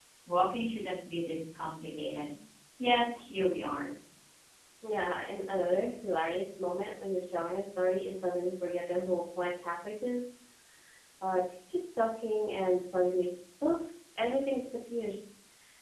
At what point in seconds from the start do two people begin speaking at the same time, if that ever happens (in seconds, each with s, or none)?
none